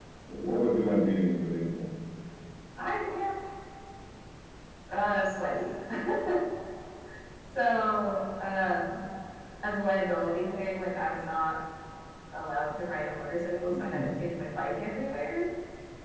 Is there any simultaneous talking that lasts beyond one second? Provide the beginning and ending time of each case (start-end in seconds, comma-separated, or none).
none